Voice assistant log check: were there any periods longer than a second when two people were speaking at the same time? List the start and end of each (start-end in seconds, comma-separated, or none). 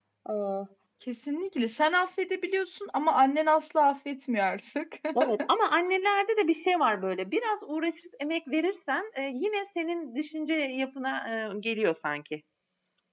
none